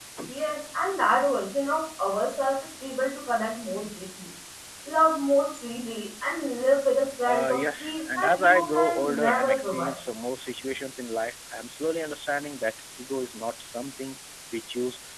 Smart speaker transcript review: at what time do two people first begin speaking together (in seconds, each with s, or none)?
7.2 s